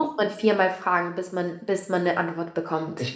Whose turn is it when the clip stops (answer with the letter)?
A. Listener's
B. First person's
B